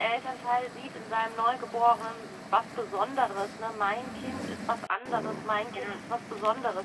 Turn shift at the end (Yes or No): No